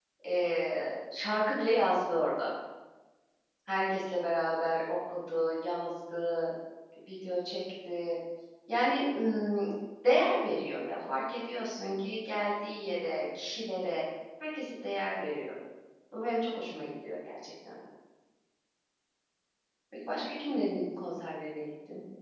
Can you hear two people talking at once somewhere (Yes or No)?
No